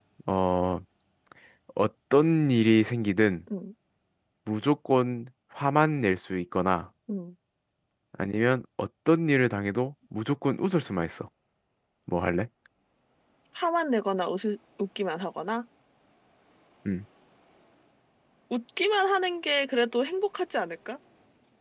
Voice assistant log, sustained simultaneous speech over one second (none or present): none